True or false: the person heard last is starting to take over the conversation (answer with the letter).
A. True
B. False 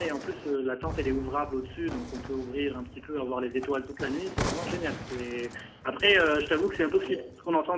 B